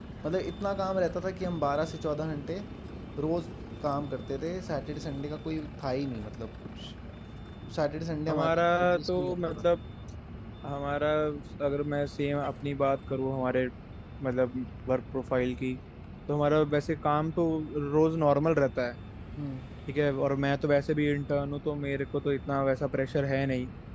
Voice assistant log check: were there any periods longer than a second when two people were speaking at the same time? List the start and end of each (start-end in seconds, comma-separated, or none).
8.3-9.7